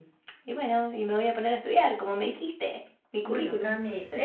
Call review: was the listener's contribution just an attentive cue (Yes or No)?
No